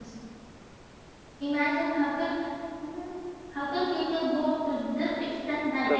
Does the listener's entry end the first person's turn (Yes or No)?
No